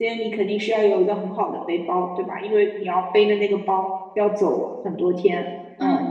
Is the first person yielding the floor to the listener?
Yes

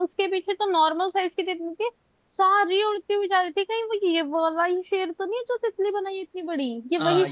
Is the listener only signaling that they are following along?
No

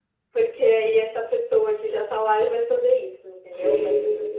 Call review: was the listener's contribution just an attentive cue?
No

